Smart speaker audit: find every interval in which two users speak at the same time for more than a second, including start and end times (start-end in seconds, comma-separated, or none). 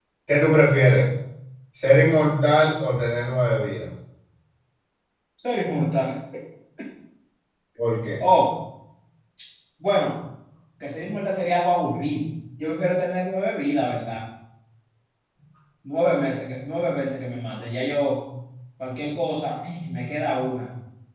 none